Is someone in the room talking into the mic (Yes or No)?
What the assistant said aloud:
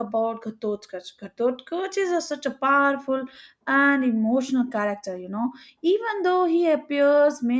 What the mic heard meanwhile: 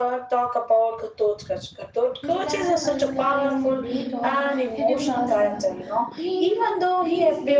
Yes